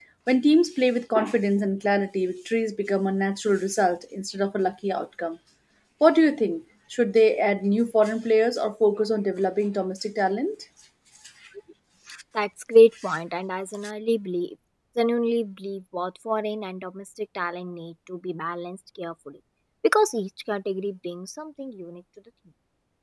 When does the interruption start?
none

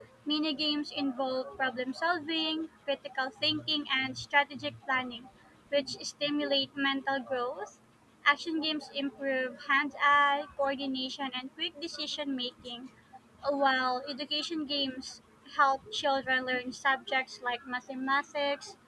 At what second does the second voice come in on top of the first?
none

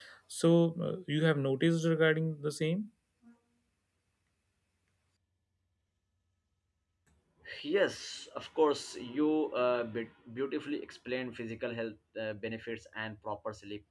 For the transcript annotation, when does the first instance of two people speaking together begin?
none

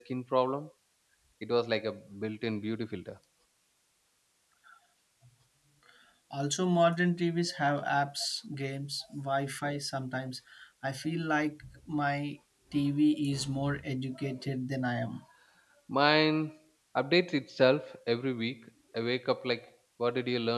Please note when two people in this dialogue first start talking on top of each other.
none

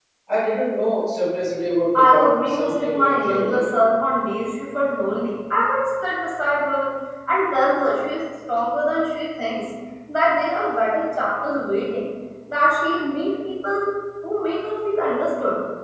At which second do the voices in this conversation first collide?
1.9 s

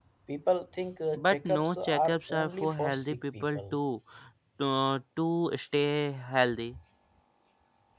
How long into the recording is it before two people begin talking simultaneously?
1.1 s

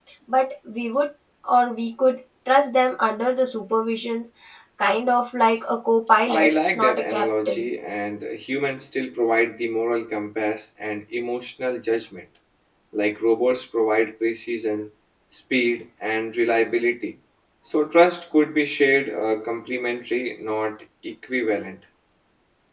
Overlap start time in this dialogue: 6.3 s

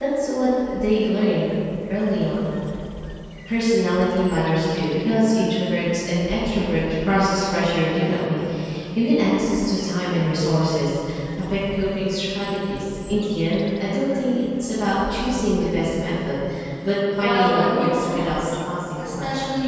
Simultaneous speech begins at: 17.2 s

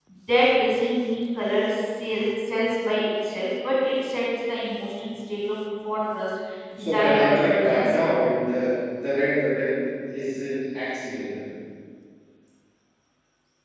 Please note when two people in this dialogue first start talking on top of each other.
6.8 s

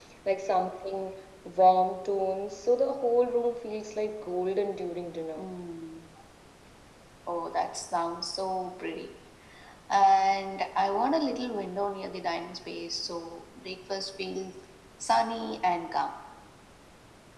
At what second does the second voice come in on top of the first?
none

